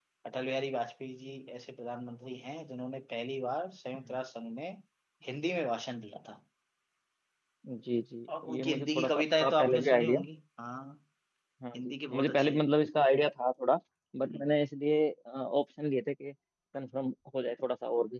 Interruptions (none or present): present